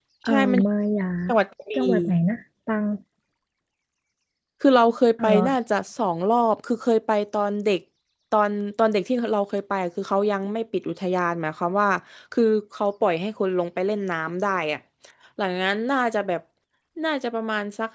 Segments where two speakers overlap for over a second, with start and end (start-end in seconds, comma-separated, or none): none